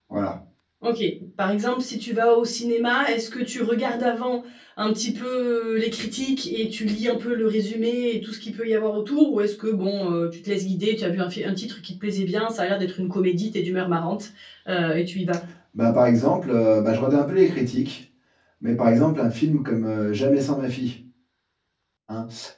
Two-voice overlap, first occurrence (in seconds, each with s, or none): none